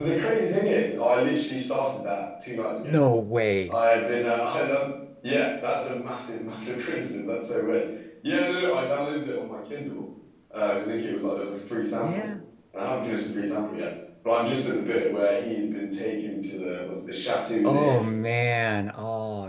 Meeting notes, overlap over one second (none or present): none